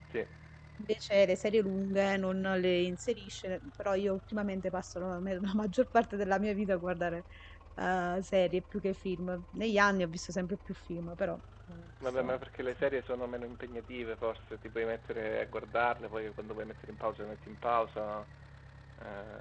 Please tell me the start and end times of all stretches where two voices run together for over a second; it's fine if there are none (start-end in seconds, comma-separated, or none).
none